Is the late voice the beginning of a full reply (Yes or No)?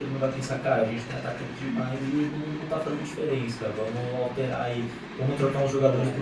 No